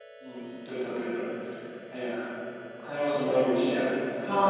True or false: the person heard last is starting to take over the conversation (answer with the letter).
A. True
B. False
A